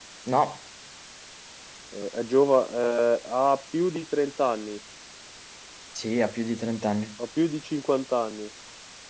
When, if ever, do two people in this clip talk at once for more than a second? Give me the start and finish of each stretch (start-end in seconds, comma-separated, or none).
none